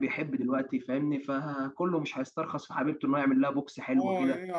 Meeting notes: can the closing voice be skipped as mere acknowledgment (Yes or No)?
No